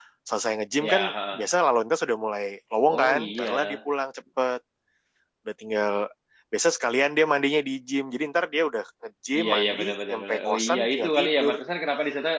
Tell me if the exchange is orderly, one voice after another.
No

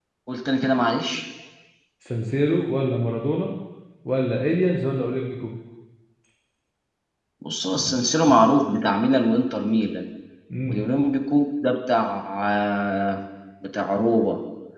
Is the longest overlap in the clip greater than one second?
No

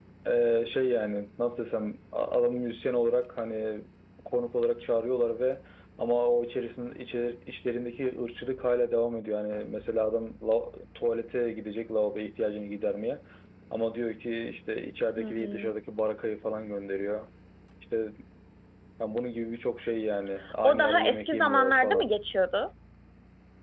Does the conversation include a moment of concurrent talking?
Yes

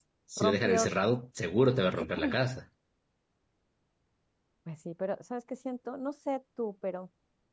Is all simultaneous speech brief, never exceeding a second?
Yes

